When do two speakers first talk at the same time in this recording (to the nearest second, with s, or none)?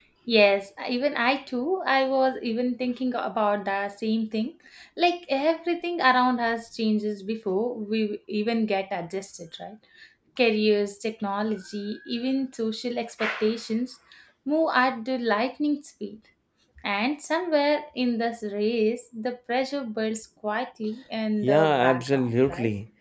21 s